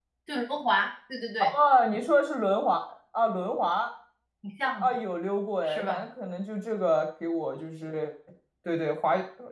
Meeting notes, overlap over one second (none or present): none